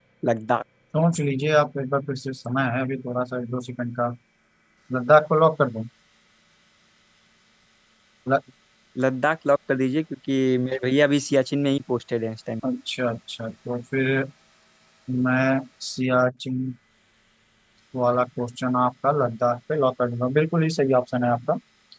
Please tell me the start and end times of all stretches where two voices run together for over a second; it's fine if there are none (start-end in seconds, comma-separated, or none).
none